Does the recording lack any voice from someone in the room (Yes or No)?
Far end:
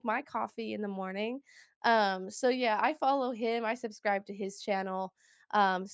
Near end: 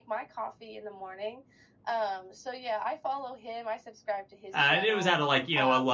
No